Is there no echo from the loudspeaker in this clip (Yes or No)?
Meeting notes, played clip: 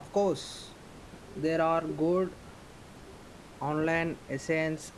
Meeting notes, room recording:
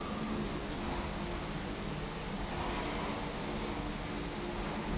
Yes